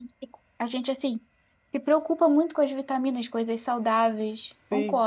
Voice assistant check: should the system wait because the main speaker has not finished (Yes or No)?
No